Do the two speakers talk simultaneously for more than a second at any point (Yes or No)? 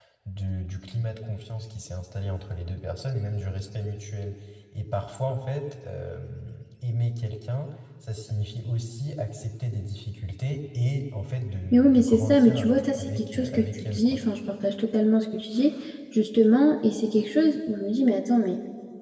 Yes